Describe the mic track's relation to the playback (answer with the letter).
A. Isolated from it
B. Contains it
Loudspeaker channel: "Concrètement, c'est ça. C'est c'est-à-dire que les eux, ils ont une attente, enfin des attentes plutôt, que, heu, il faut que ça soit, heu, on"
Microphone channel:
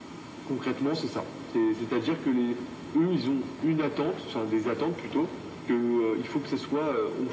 B